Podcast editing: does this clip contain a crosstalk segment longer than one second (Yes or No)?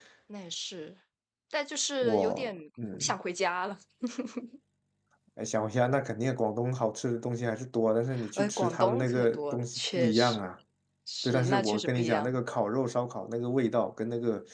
Yes